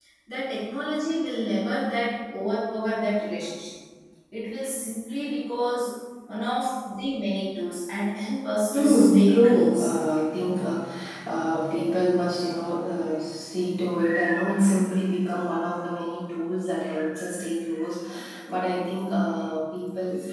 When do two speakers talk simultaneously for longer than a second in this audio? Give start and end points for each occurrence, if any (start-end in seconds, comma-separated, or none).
8.7-9.9